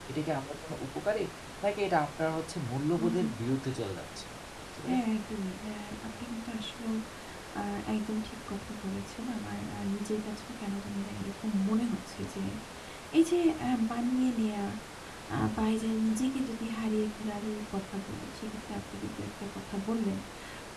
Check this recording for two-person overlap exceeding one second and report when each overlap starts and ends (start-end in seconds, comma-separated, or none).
none